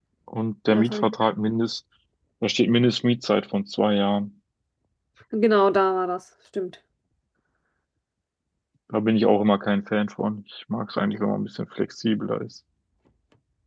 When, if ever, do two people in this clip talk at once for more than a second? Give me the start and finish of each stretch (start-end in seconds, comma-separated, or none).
none